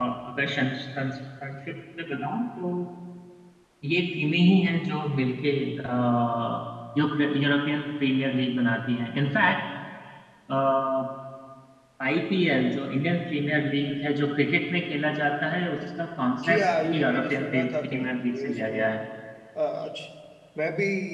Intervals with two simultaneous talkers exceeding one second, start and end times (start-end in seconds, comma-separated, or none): 16.5-18.8